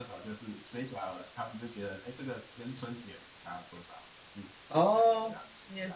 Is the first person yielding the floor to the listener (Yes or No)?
Yes